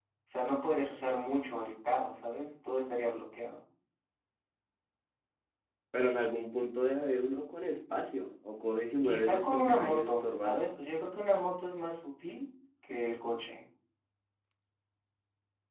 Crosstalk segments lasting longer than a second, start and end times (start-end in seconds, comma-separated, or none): 9.0-10.6